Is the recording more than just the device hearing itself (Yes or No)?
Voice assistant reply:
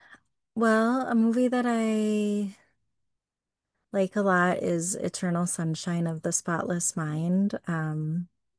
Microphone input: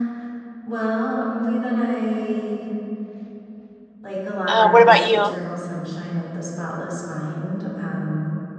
Yes